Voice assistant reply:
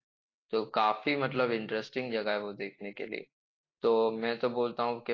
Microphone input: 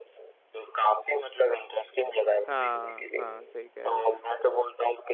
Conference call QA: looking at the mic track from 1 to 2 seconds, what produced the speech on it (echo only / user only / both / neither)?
echo only